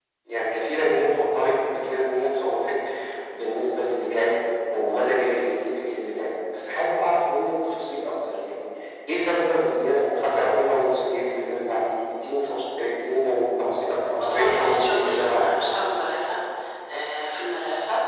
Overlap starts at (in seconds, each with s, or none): 14.2 s